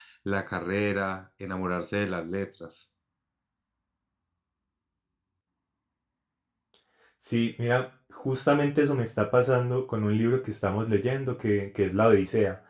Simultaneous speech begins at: none

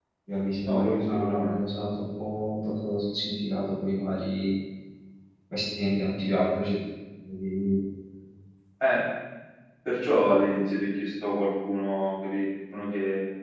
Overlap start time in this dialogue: 1 s

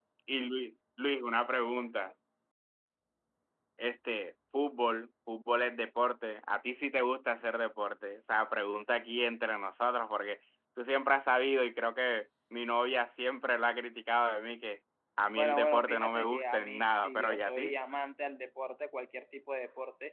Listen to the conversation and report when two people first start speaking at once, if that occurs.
15 s

